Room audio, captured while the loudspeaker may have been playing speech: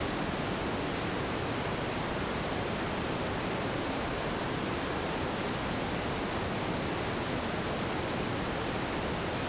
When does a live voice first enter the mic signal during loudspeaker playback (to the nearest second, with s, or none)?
none